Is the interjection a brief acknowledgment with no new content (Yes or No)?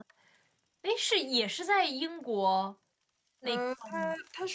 No